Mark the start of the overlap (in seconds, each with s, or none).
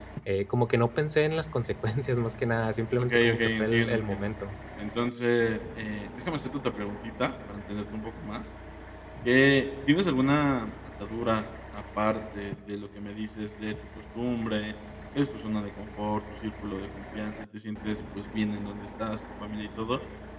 3.0 s